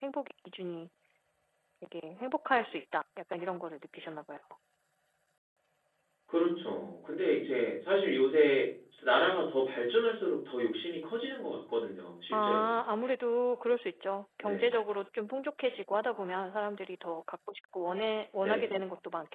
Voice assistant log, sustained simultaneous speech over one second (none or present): none